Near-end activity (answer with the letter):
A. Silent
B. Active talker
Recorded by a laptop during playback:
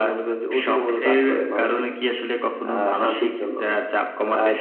B